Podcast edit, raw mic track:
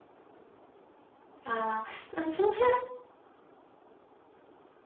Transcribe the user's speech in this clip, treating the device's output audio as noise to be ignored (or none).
ああ、うん、その辺